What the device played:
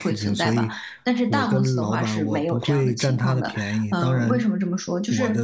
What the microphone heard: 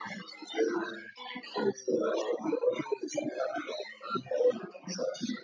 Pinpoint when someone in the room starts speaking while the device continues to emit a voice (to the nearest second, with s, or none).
none